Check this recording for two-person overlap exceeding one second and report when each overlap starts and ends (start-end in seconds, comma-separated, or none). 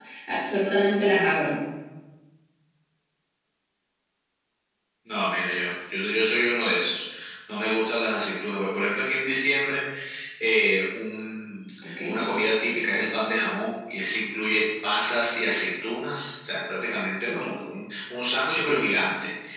none